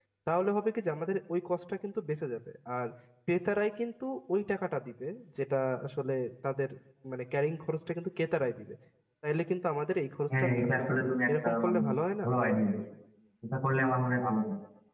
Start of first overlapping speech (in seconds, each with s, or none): 10.3 s